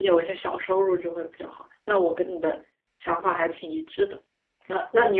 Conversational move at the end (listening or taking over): listening